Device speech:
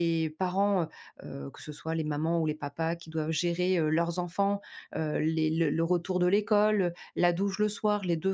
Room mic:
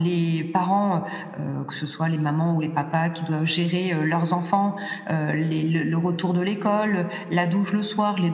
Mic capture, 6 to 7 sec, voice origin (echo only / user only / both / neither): echo only